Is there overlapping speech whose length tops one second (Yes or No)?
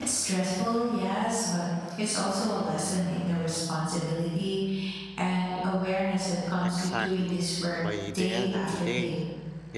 Yes